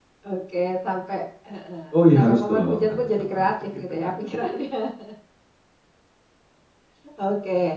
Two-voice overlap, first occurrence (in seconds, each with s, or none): 1.9 s